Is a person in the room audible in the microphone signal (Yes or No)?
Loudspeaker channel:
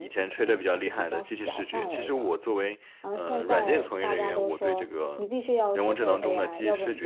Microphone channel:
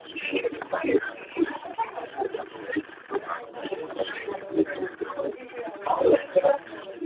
No